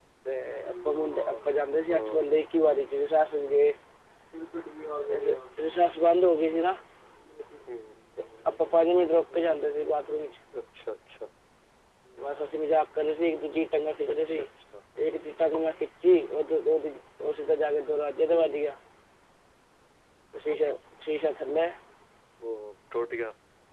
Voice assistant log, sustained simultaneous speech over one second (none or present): none